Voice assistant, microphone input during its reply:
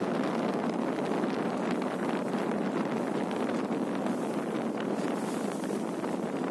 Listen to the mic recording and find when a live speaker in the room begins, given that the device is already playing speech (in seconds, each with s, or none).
none